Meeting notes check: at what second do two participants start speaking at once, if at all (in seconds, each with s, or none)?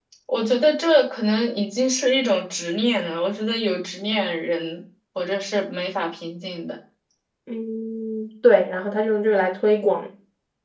none